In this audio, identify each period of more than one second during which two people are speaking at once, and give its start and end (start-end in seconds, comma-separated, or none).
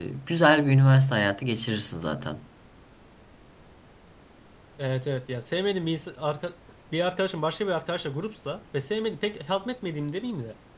none